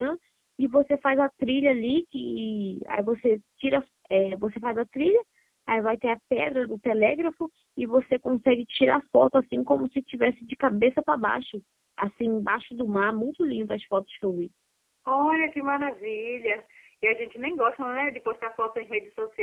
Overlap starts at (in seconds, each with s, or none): none